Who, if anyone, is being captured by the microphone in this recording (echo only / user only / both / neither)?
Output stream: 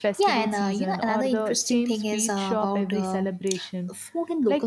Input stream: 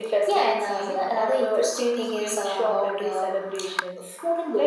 echo only